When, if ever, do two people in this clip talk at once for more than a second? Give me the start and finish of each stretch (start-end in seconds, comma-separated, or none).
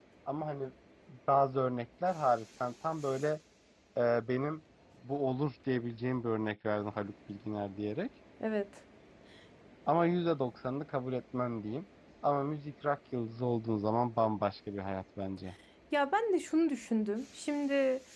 none